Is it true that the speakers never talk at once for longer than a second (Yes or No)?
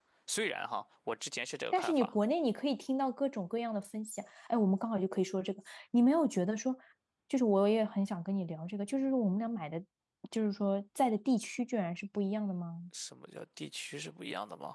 Yes